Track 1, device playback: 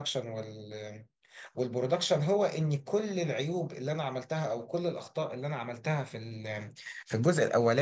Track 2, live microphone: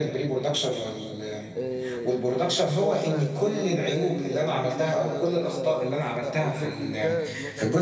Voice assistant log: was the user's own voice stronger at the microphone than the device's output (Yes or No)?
No